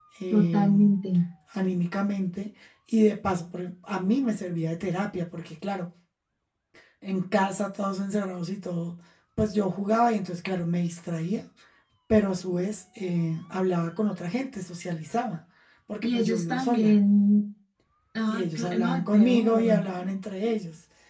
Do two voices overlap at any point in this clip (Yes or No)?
Yes